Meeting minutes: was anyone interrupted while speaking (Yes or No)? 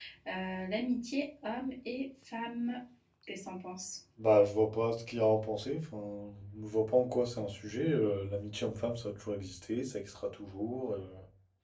No